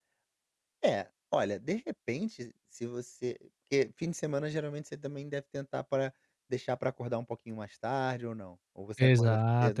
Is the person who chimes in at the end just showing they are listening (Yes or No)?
No